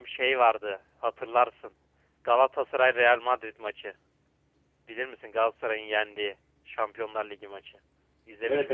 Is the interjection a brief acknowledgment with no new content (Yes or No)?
No